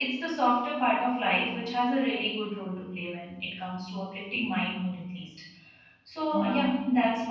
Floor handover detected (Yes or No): No